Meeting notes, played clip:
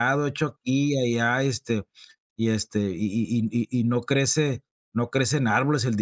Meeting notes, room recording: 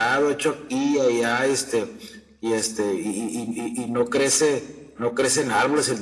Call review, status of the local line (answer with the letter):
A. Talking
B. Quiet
B